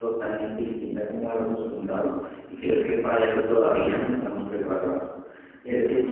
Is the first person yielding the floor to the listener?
No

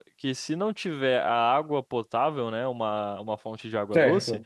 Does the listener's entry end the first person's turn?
No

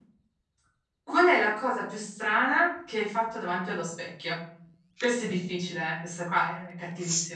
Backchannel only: No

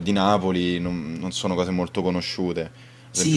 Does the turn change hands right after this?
Yes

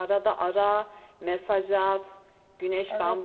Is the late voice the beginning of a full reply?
No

